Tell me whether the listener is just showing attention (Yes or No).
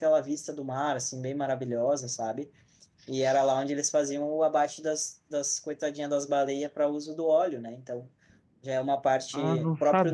No